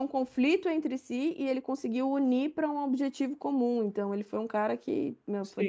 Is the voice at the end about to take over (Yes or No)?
Yes